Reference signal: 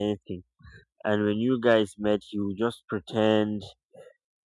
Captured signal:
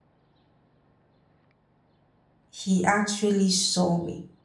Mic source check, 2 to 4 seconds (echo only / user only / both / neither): user only